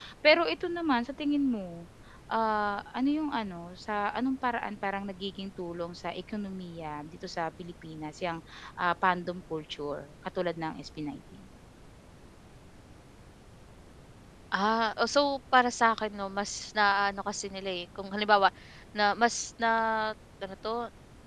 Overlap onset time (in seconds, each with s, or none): none